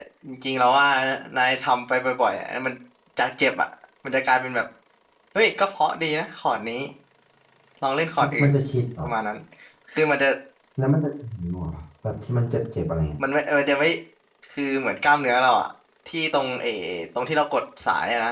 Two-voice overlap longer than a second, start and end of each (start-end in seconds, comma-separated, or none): none